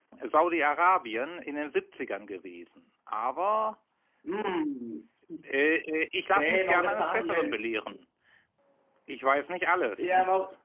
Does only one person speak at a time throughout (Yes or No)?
No